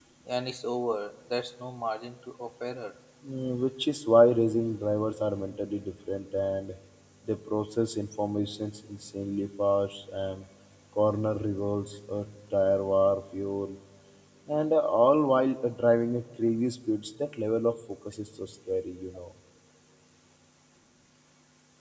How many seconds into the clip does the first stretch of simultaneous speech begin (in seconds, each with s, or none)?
none